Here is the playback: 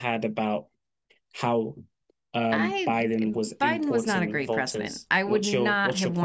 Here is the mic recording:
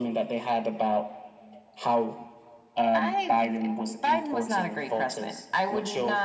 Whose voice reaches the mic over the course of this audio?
echo only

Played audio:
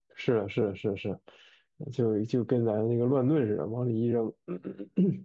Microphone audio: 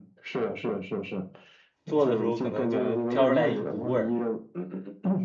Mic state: both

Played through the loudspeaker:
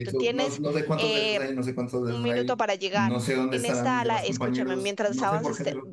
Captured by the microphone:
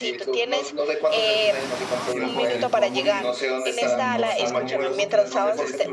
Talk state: both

